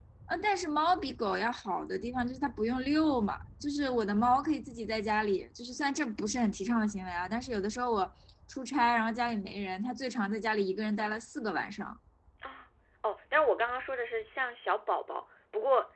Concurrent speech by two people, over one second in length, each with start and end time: none

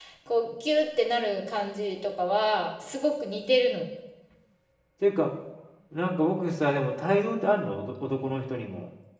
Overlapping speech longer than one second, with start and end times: none

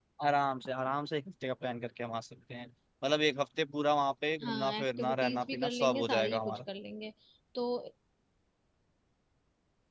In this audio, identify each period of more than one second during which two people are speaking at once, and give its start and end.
4.4-6.6

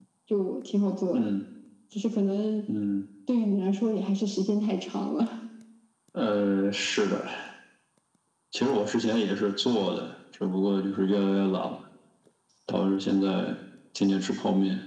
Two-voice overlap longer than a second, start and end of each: none

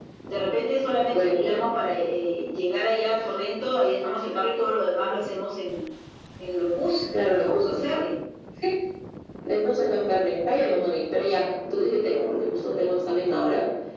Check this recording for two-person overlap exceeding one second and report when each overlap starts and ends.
none

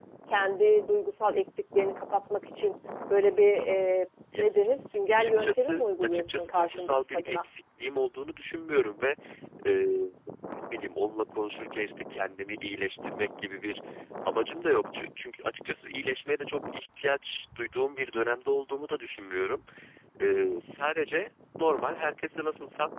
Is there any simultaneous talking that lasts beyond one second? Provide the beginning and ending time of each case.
5.2-7.5

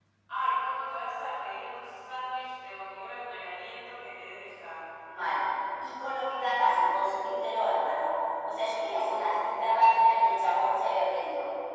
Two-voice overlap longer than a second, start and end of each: none

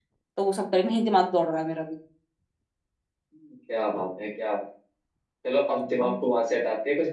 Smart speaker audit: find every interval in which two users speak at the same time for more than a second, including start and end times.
none

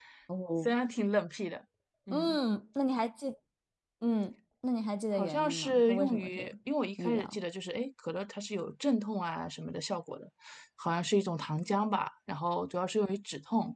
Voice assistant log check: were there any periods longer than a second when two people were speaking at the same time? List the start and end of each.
5.1-6.5

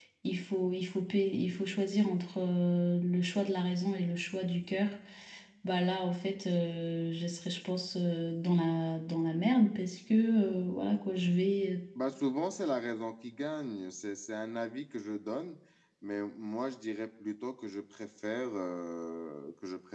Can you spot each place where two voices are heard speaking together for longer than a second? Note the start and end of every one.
none

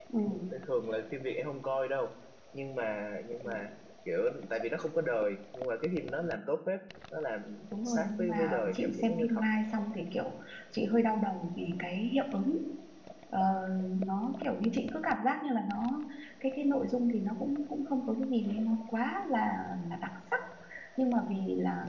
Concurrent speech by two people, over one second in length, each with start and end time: 7.8-9.4

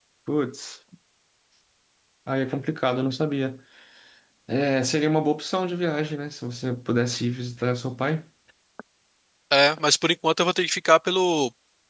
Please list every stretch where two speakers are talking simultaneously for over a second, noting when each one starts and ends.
none

